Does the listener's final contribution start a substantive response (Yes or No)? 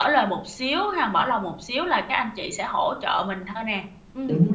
Yes